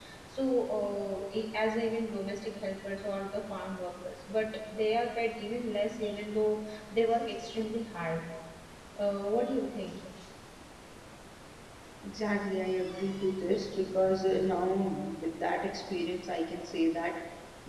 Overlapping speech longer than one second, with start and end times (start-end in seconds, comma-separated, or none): none